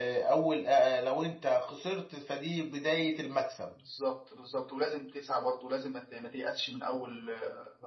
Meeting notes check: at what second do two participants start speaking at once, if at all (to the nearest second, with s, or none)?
none